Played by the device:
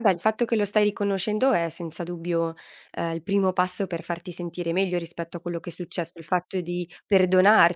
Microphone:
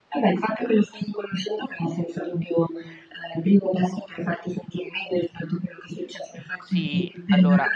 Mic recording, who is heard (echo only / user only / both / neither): both